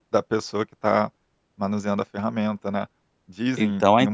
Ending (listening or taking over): taking over